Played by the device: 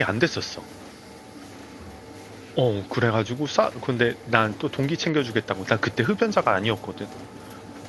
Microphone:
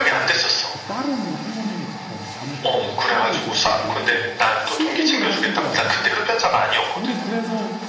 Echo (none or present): present